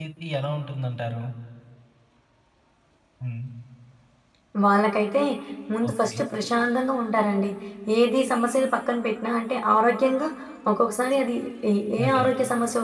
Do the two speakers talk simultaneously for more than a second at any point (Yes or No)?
No